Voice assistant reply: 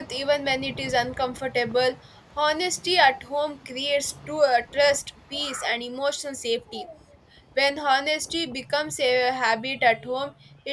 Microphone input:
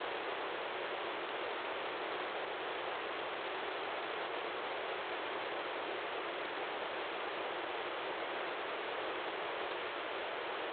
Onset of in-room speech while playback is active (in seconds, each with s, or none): none